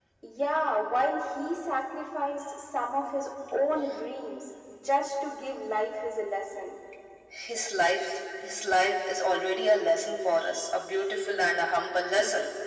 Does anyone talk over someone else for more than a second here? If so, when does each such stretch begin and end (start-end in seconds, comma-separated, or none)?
none